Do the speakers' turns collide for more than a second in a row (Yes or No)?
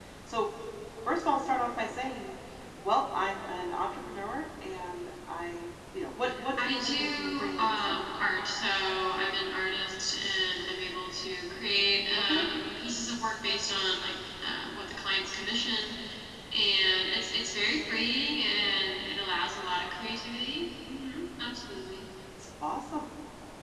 Yes